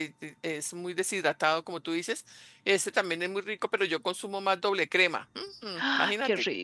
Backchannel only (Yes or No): No